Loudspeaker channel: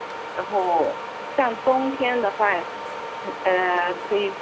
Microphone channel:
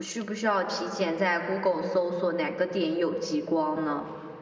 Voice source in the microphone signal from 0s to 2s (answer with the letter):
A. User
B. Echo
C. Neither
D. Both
A